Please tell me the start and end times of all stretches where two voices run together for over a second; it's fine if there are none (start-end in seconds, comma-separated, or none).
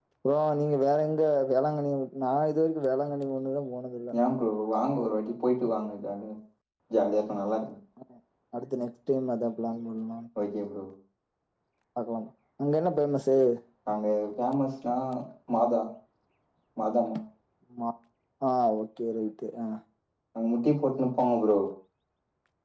none